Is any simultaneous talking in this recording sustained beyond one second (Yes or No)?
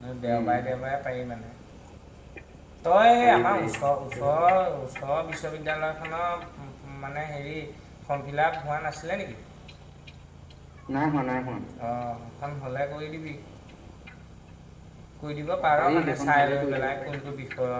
Yes